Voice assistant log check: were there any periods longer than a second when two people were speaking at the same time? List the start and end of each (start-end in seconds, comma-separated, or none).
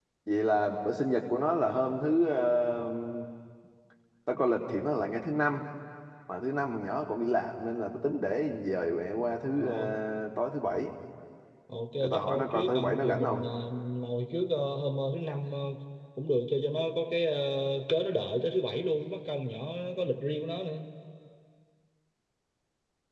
12.0-13.5